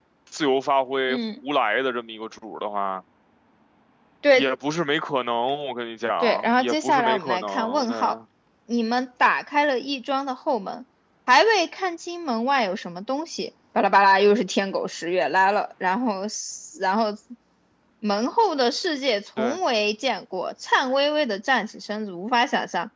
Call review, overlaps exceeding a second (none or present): present